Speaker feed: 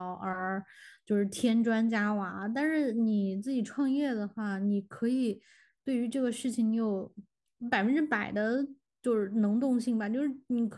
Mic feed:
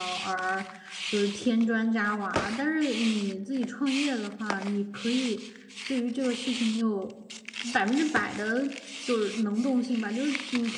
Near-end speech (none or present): none